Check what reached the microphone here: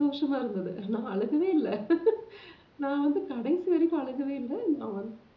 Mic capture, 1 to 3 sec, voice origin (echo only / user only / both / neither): user only